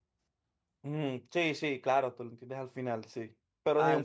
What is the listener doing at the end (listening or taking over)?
listening